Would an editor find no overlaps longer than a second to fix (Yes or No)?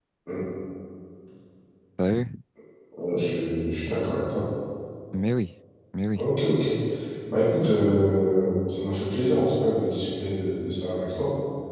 Yes